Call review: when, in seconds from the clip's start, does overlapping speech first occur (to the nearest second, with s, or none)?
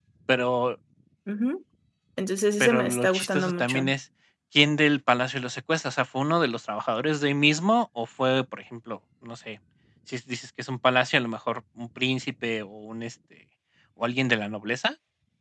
3 s